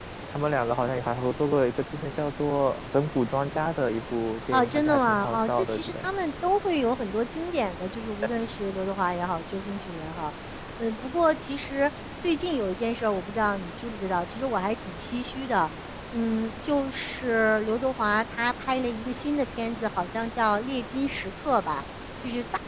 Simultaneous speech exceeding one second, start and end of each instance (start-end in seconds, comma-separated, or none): 4.5-6.1